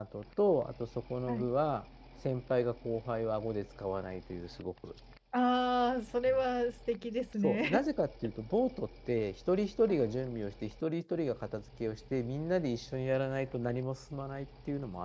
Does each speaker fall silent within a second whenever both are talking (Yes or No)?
Yes